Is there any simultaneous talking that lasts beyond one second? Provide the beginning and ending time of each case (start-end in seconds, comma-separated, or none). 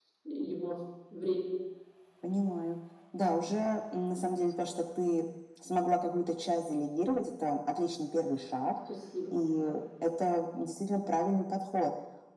none